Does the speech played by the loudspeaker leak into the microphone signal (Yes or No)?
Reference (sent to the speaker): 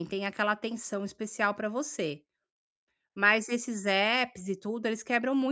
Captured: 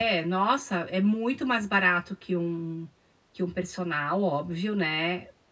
No